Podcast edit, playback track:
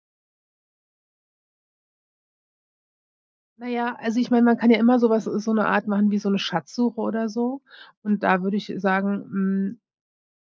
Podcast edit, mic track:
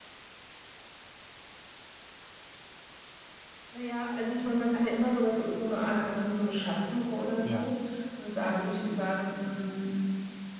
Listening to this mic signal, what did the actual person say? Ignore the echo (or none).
Ja.